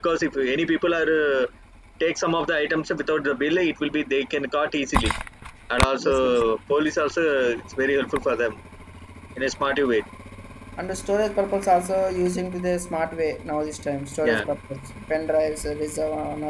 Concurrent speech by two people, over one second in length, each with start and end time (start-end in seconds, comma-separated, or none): none